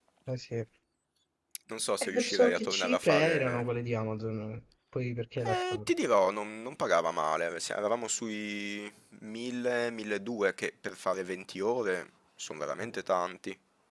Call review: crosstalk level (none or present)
present